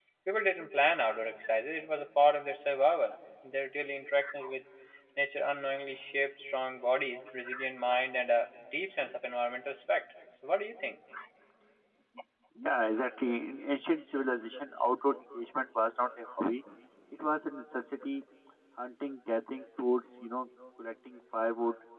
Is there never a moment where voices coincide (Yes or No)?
Yes